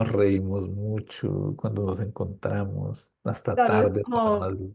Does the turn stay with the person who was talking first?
No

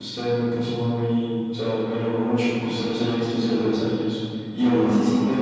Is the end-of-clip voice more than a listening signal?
No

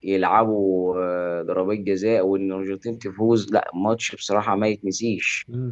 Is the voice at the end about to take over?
Yes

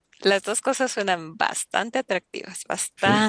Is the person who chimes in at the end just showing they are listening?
No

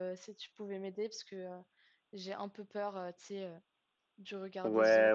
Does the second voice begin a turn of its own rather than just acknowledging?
Yes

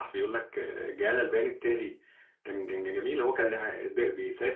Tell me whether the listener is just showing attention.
Yes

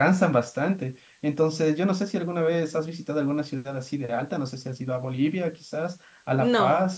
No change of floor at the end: No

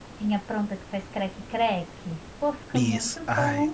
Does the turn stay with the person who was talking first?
No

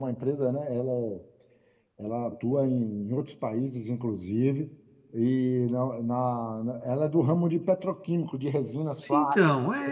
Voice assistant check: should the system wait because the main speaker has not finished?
No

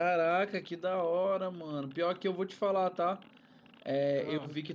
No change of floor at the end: Yes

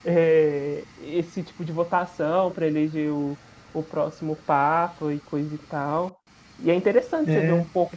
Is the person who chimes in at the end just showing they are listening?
Yes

